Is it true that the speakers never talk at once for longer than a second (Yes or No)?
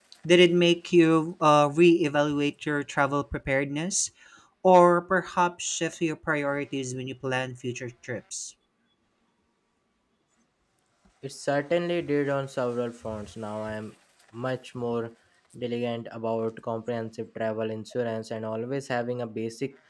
Yes